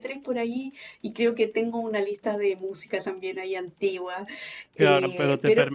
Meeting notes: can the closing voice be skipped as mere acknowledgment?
No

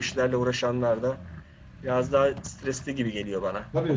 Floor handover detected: Yes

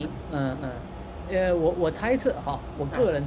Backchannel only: Yes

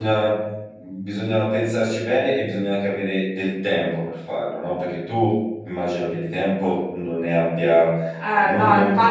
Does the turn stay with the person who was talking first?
No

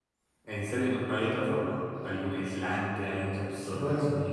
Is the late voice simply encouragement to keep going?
No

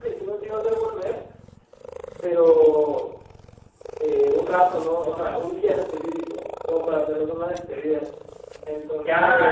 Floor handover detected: Yes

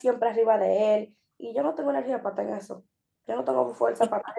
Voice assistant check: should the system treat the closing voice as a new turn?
No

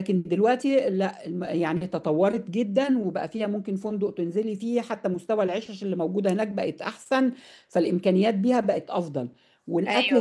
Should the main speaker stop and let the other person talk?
No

